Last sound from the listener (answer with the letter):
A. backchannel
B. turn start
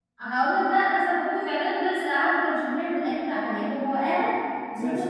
A